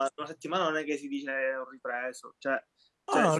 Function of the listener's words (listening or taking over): taking over